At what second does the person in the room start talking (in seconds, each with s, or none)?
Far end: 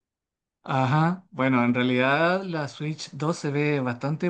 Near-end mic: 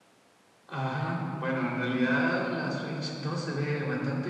none